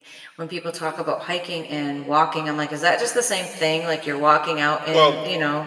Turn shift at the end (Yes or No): No